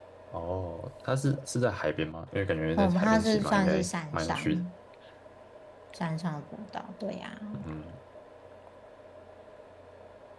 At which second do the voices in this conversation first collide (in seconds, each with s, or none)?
2.8 s